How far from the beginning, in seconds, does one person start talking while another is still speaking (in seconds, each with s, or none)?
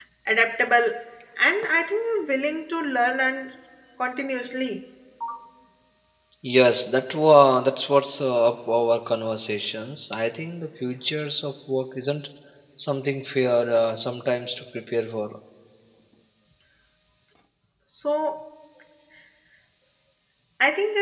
none